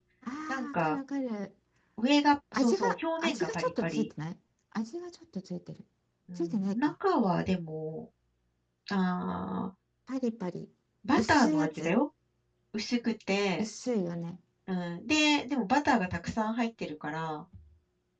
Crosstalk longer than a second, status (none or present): present